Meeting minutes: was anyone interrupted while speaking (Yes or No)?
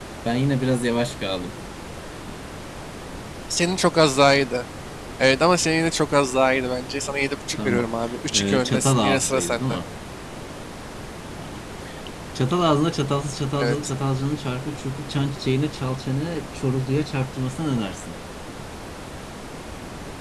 Yes